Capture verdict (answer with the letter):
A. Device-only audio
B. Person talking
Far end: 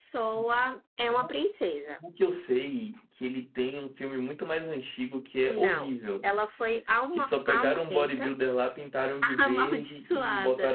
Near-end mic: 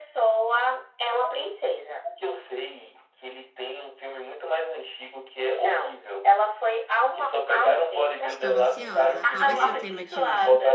B